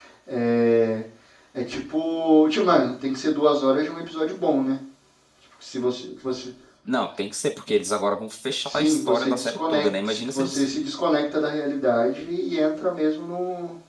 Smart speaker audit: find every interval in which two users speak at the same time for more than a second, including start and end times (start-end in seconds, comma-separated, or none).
8.7-10.7